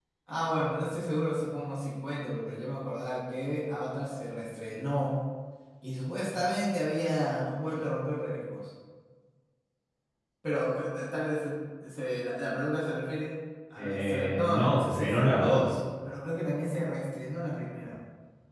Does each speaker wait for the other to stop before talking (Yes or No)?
No